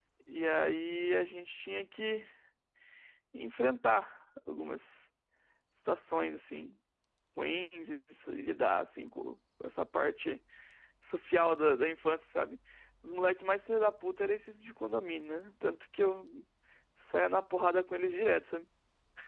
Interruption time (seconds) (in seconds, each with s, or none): none